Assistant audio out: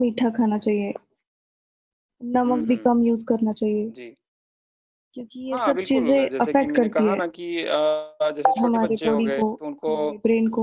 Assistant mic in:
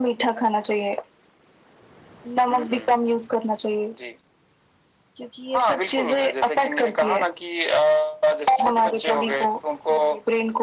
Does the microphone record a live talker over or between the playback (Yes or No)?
No